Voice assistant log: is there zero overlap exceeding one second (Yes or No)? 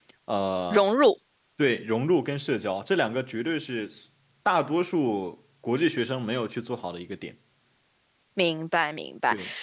Yes